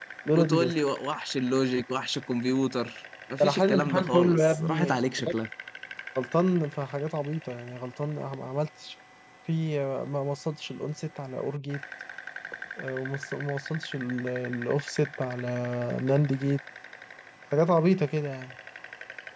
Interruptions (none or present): present